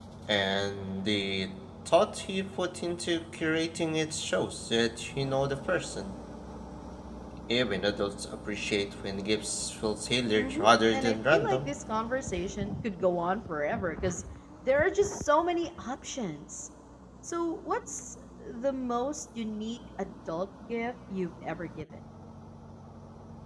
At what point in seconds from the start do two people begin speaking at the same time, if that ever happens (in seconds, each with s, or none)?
10.3 s